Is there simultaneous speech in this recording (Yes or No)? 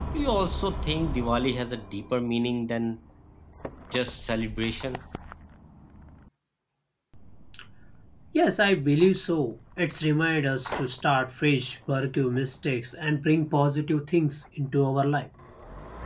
No